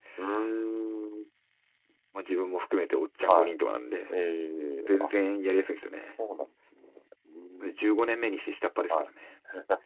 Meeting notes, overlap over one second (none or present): none